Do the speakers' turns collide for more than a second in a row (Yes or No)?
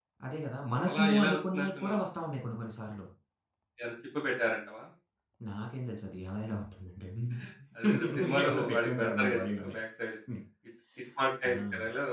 Yes